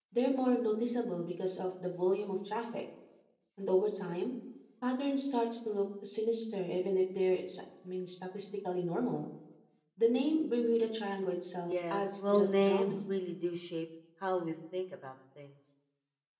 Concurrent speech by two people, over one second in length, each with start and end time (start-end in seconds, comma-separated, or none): 11.7-12.9